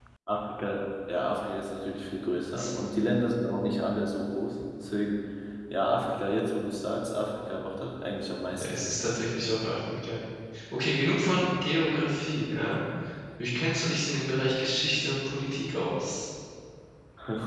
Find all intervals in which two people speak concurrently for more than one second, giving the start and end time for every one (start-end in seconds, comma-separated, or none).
none